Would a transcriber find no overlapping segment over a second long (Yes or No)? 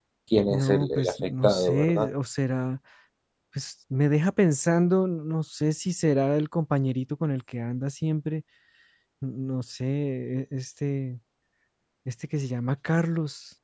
No